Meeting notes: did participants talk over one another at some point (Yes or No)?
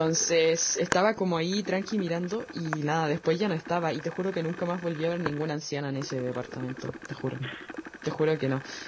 No